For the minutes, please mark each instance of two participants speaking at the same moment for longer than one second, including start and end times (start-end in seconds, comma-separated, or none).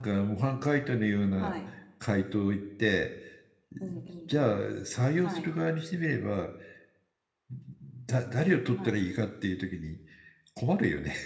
none